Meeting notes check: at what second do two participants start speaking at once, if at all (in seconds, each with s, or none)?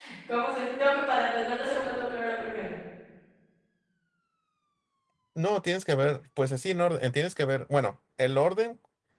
none